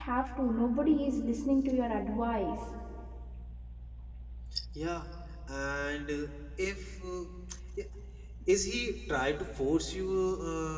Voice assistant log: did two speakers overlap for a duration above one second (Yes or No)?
No